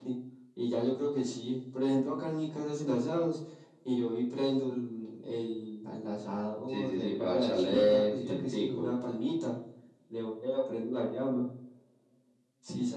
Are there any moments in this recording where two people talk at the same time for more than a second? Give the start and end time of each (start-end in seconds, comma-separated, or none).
6.7-8.9